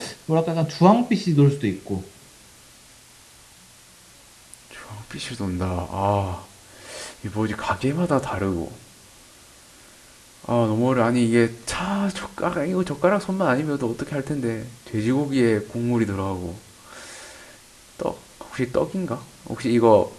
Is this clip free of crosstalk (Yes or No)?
Yes